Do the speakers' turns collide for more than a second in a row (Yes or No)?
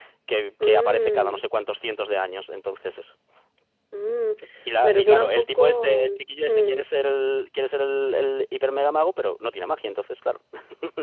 Yes